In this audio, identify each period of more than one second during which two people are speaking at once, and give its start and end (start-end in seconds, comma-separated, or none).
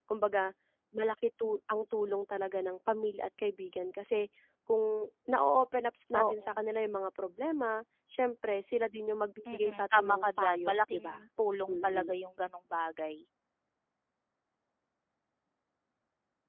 9.5-11.2